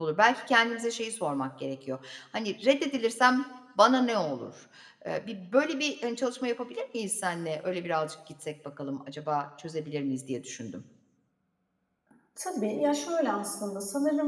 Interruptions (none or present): none